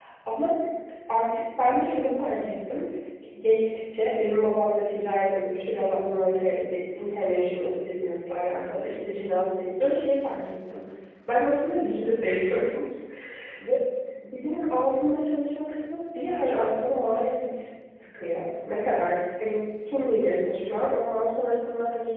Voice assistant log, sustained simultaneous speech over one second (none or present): present